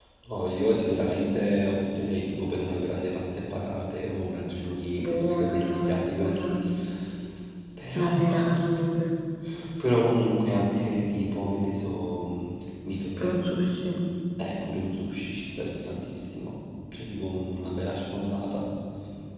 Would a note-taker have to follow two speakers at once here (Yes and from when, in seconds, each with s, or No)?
Yes, from 5.1 s